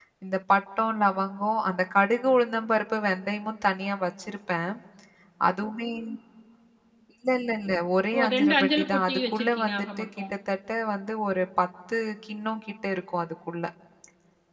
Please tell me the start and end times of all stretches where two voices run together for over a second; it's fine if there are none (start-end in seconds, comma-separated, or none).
8.2-10.1